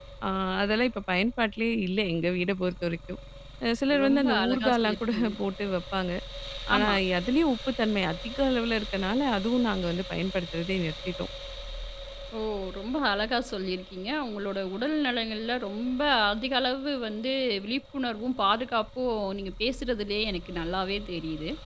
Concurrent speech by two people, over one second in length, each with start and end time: 4.0-5.3

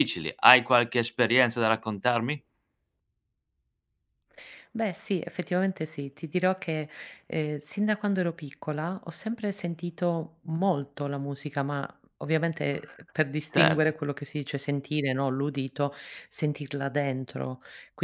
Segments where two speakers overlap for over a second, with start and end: none

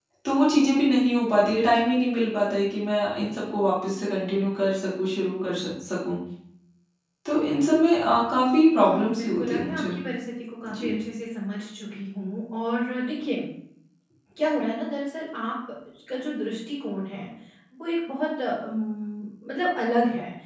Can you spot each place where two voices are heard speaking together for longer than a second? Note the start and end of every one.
8.7-10.0

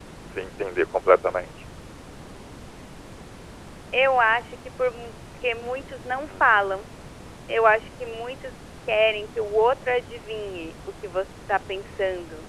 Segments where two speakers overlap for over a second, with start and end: none

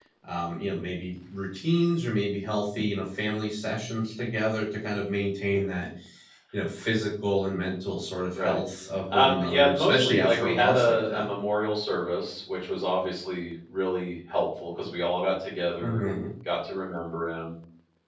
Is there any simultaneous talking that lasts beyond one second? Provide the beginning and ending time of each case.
9.1-11.3

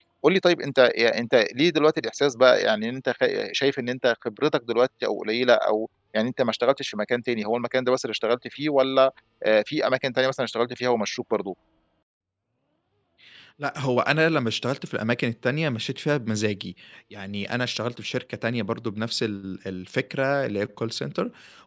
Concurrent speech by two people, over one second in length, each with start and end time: none

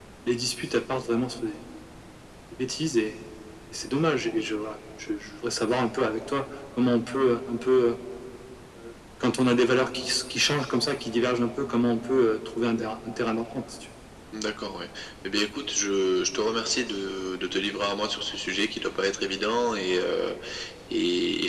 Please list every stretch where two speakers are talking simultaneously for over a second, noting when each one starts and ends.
none

